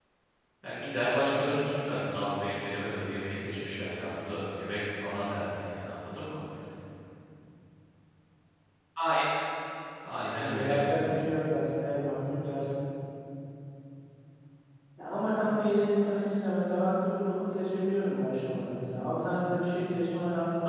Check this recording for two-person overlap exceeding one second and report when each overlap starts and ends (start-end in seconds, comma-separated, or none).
none